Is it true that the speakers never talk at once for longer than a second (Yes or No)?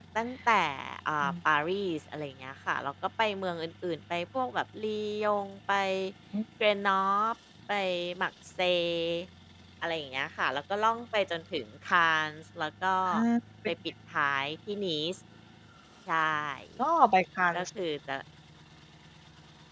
Yes